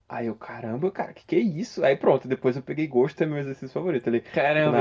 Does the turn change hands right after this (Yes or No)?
Yes